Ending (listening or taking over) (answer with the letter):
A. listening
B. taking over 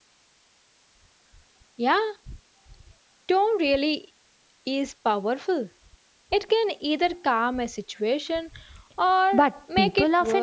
B